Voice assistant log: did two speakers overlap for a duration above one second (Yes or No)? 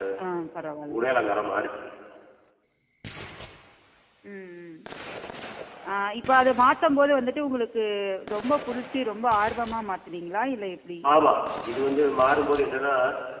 No